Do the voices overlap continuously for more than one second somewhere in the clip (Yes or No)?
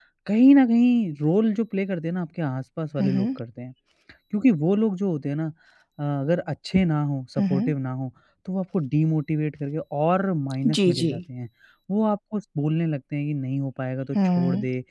No